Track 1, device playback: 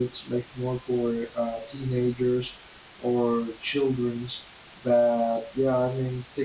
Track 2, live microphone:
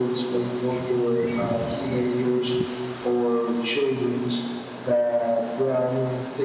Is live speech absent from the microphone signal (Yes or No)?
Yes